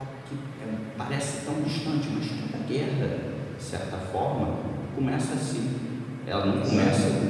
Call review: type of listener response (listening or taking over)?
listening